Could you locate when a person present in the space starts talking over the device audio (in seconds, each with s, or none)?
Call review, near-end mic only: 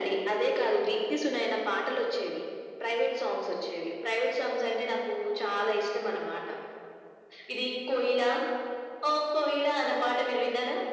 none